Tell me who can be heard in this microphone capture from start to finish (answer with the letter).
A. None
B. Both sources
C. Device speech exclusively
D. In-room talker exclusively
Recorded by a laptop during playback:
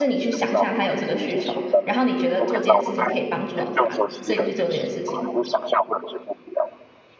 B